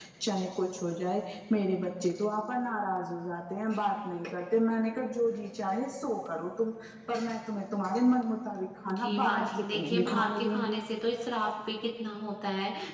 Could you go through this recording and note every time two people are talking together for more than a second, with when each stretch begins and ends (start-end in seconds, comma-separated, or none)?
9.0-10.8